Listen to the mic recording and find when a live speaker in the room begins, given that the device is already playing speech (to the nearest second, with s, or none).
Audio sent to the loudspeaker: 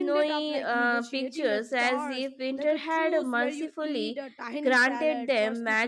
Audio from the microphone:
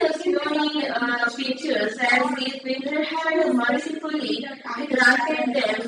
none